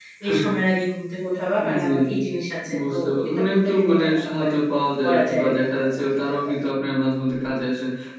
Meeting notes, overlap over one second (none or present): present